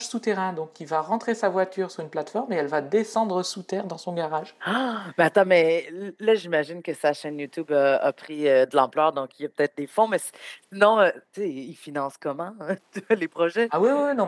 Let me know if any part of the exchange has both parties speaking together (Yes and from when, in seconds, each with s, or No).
No